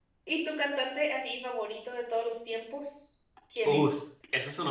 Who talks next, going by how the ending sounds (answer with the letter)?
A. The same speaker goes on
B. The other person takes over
B